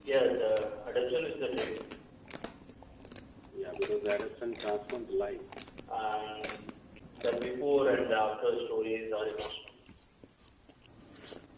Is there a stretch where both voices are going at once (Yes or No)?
No